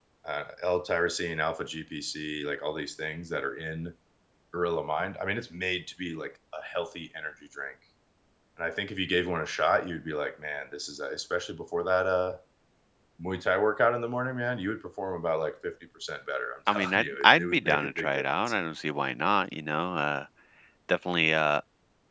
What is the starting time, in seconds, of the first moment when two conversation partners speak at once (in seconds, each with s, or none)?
16.7 s